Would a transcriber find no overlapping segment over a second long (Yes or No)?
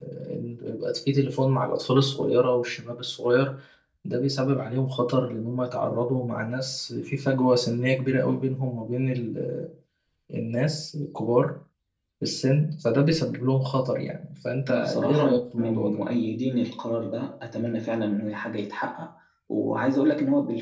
No